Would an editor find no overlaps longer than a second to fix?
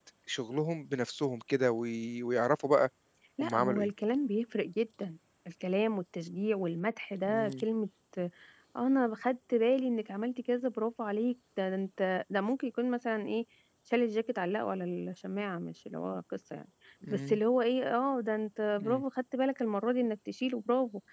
Yes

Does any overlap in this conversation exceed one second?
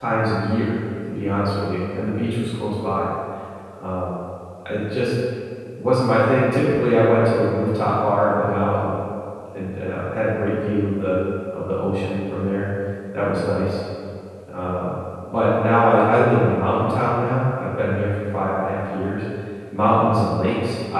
No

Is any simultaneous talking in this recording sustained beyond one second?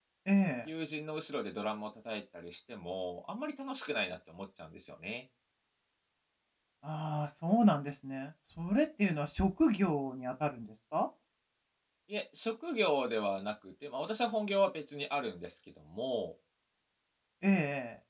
No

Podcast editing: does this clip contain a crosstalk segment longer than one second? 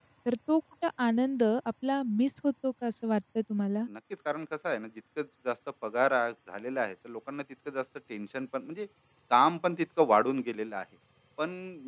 No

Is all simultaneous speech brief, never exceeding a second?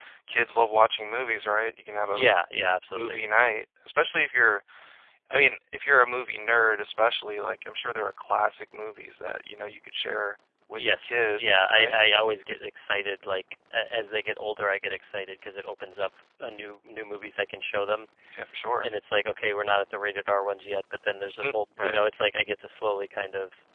No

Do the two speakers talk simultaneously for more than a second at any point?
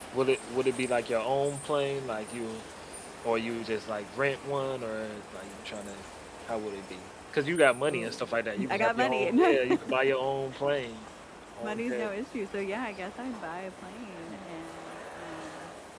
Yes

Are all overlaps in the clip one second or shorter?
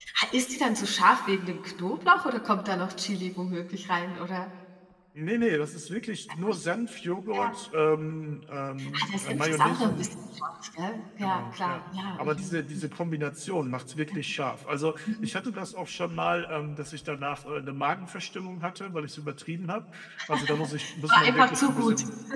No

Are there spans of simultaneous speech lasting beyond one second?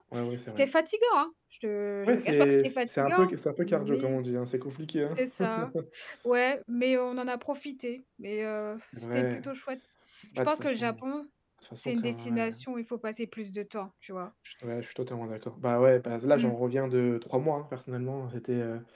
Yes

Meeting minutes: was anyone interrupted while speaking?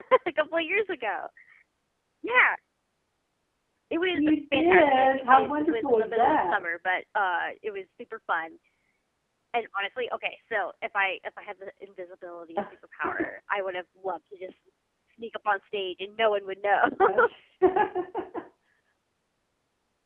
Yes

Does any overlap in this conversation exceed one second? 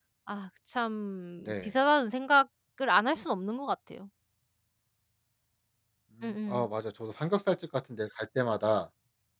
No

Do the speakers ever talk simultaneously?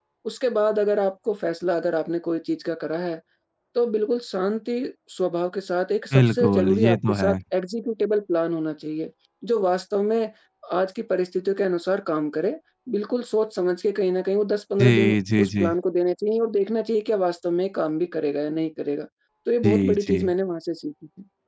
Yes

